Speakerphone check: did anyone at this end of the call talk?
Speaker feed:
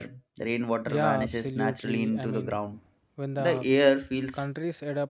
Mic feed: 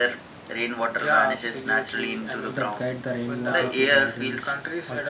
Yes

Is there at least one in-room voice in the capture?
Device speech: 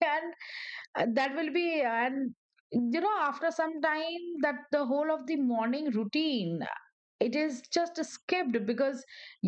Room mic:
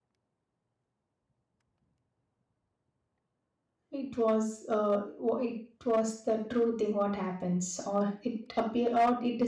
Yes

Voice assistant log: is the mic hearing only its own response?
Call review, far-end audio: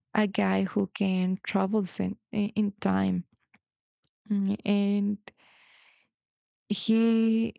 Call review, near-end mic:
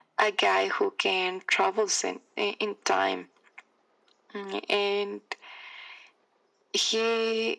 Yes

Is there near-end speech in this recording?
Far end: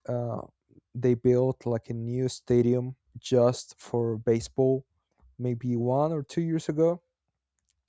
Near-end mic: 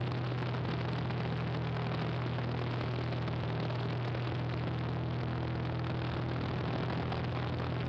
No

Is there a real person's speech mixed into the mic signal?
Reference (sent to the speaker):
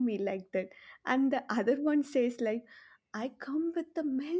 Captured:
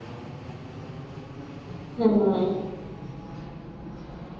Yes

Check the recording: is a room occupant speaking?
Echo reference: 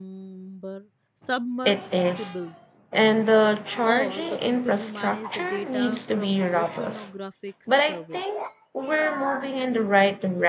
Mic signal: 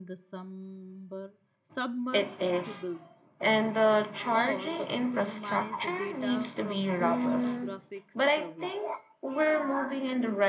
Yes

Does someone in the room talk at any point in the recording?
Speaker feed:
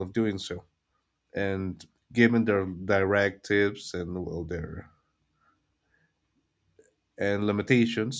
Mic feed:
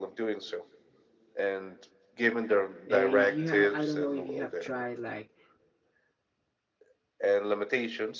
Yes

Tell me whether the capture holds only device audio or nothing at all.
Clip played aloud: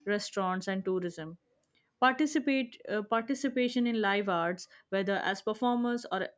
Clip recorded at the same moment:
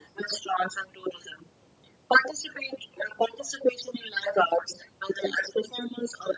Yes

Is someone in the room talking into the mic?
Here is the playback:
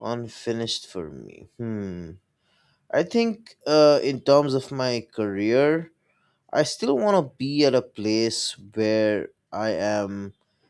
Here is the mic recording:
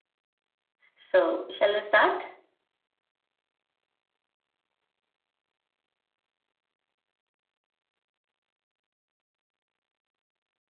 Yes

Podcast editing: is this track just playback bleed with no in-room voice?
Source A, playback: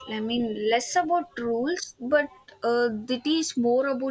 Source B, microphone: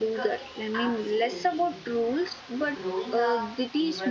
No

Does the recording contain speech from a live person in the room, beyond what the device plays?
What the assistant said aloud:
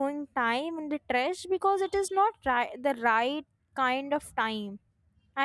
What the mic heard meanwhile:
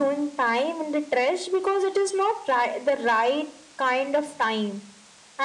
No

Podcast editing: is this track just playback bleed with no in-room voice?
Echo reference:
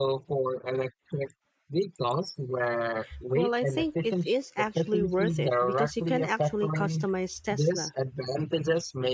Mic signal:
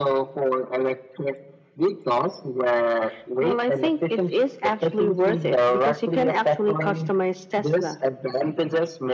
Yes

